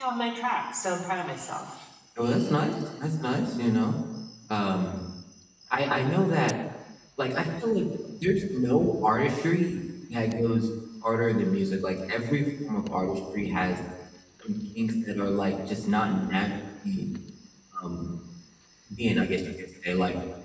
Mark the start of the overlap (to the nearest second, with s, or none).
none